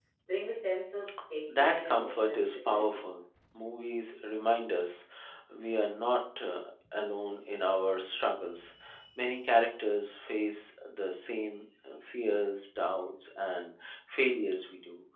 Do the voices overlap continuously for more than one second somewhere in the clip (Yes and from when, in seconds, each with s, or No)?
Yes, from 1.5 s